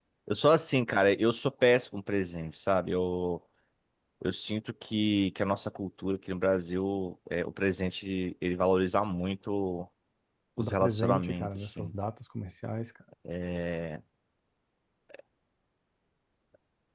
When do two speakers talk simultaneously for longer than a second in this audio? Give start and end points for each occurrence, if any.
10.6-11.9

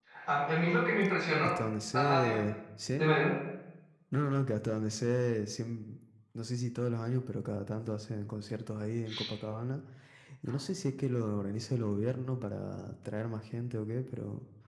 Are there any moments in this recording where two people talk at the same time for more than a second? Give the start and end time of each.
none

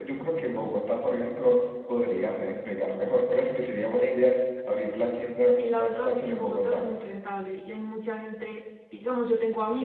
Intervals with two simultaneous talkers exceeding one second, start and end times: 5.4-6.9

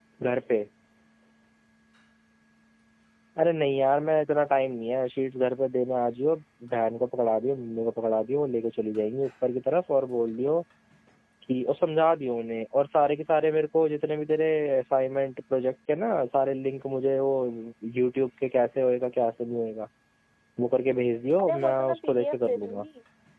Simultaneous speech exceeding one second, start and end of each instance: 21.4-22.8

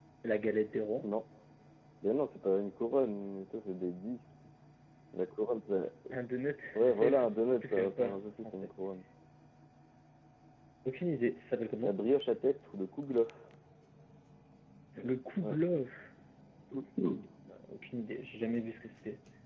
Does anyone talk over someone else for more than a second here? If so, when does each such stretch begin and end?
6.8-8.7

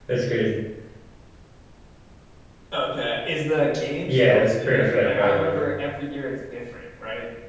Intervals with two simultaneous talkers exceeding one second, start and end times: 4.1-5.7

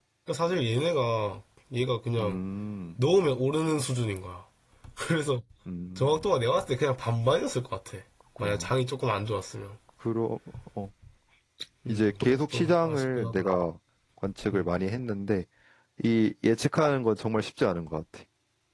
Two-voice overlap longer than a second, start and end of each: 11.9-13.6

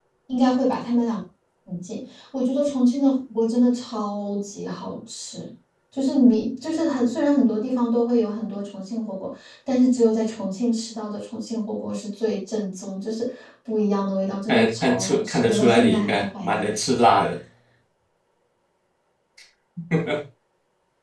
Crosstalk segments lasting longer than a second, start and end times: 14.5-16.7

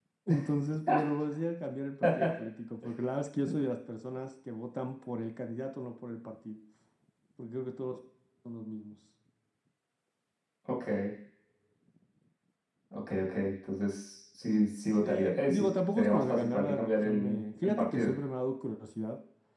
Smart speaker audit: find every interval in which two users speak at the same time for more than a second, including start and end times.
15.0-18.1

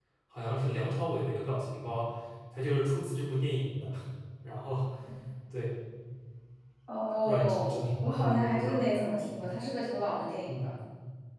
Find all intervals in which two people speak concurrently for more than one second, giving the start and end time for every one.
7.2-8.8

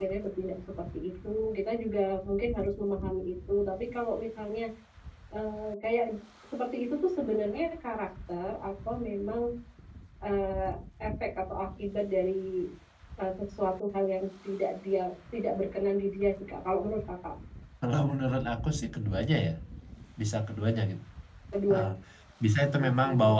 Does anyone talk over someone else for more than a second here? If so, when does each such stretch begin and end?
none

